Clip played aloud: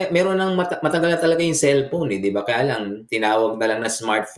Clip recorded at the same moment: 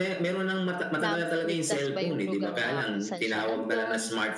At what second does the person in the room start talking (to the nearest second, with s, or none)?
1 s